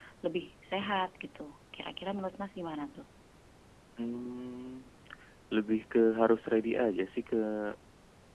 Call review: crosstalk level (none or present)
none